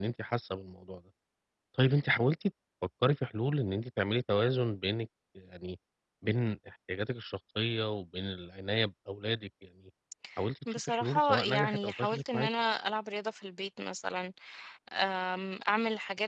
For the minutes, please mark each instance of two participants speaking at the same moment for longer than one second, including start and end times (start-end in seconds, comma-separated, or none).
10.7-12.5